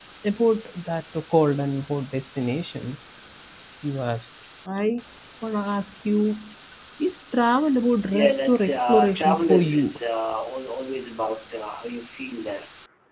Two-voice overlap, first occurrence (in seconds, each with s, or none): 8.1 s